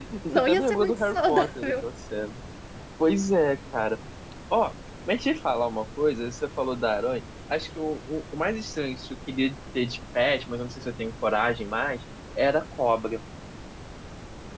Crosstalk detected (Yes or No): Yes